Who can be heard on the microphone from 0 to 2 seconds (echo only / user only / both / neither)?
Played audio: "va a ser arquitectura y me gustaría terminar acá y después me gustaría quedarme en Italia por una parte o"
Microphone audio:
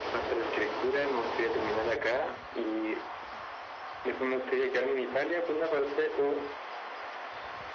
echo only